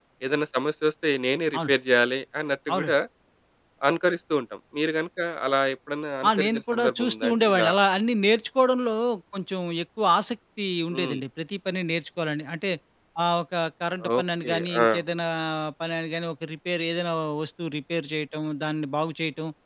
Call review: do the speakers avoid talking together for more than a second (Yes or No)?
No